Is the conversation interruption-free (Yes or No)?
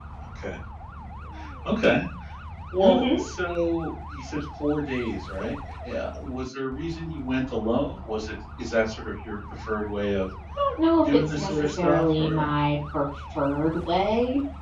No